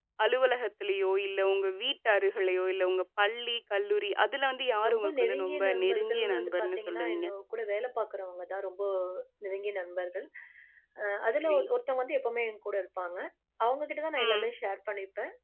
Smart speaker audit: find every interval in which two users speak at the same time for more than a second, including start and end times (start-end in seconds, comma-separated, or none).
4.9-7.3